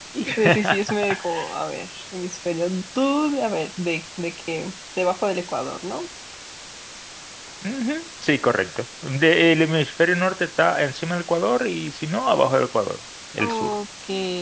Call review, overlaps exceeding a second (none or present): none